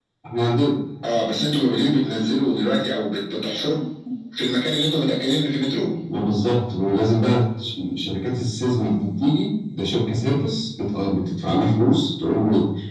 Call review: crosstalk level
none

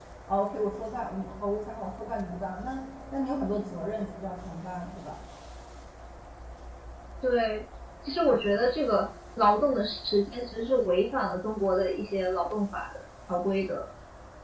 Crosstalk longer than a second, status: none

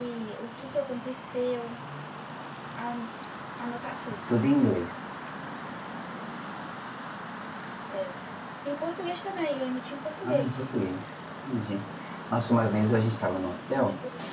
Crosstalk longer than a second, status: none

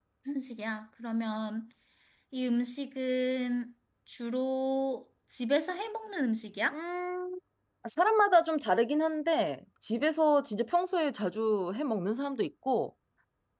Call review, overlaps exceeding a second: none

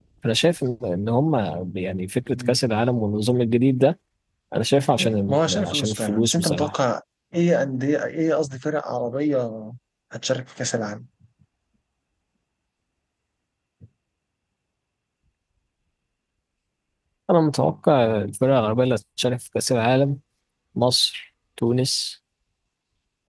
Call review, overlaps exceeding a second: present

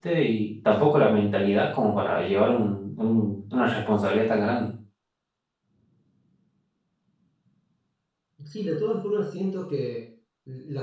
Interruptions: none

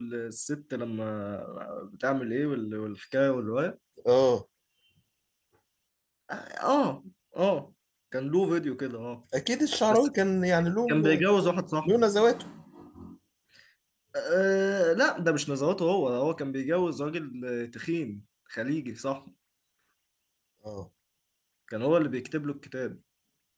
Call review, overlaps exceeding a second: none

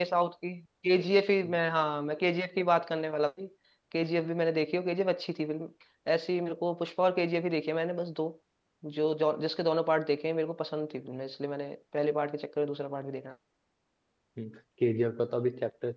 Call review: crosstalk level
none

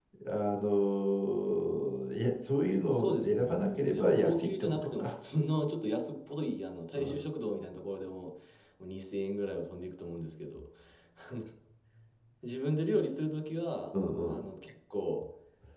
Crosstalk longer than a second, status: present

